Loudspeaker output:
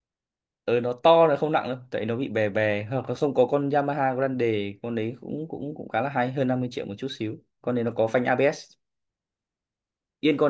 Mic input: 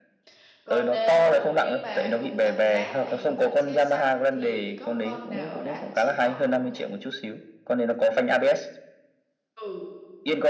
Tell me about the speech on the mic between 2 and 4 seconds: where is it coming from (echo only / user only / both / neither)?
both